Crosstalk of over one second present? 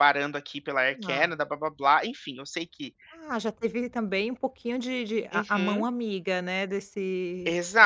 No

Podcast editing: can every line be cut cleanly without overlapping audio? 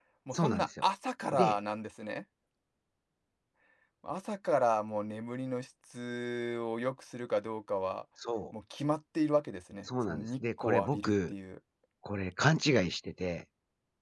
No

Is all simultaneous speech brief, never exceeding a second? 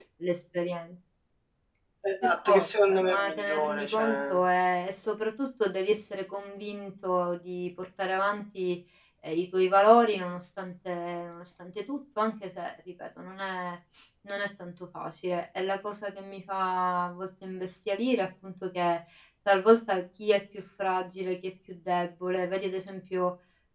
No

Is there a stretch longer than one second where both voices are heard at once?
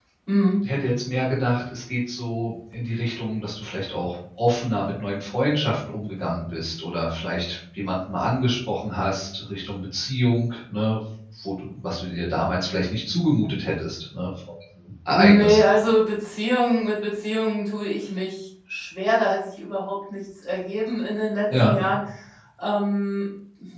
No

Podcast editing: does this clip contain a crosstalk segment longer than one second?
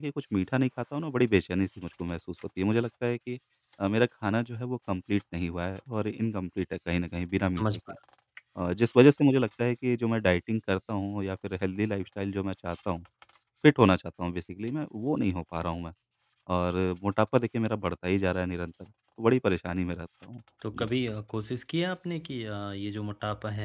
No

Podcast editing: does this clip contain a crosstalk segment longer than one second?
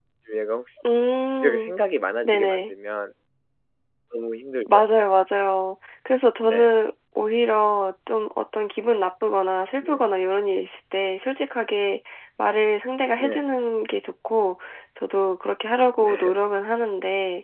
No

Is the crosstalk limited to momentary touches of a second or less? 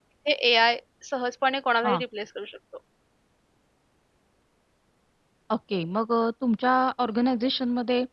Yes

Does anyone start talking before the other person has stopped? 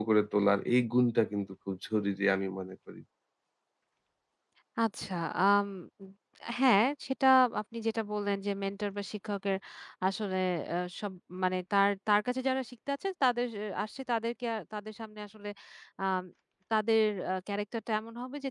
No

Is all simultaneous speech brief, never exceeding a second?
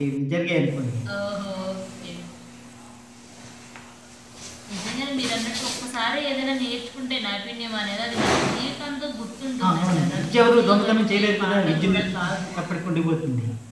No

